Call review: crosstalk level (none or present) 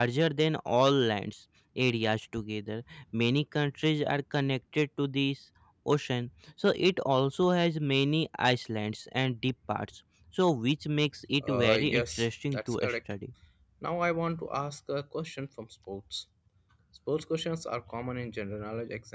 present